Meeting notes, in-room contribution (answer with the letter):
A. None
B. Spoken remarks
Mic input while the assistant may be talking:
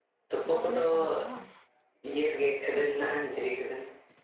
B